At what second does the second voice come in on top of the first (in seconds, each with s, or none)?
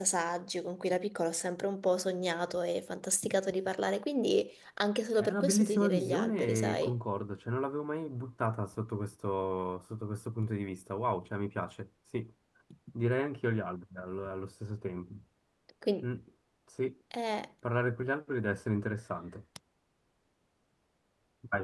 5.2 s